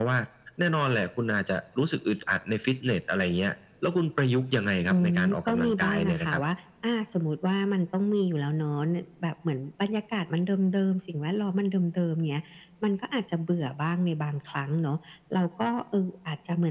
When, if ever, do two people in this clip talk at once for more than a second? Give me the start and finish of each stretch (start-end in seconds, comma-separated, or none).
4.9-6.4